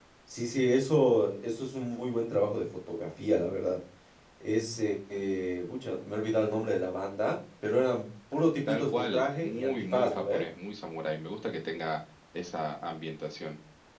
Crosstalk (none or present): present